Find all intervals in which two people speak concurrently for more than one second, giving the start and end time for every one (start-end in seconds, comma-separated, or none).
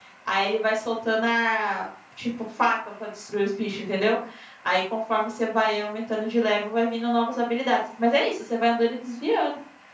none